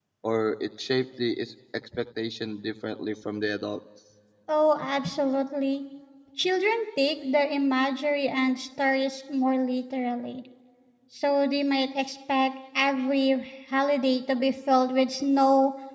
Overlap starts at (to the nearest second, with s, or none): none